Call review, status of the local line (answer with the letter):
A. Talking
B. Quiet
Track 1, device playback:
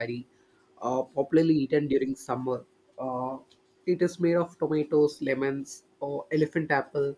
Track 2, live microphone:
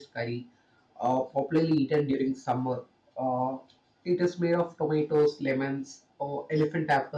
B